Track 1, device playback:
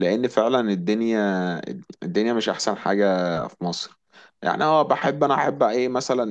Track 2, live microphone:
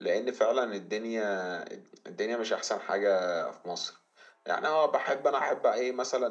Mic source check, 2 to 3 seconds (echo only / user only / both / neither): echo only